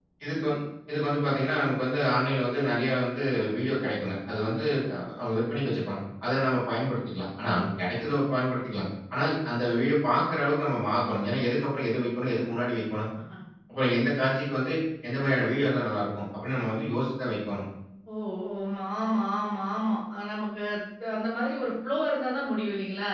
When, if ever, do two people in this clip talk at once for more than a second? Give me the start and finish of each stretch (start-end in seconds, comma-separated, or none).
none